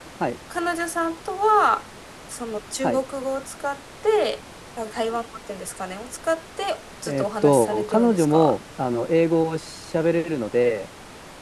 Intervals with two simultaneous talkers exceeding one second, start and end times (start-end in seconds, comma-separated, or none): 7.1-8.5